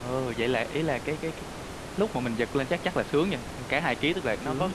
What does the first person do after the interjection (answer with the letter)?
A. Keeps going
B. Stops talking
A